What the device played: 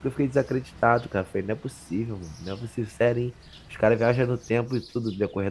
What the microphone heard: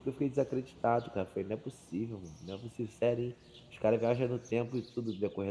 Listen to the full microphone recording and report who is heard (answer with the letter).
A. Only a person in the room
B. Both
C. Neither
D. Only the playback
D